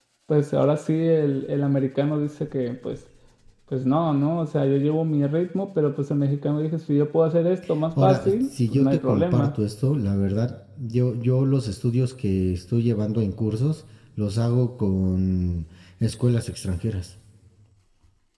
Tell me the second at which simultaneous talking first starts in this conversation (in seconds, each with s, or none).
7.9 s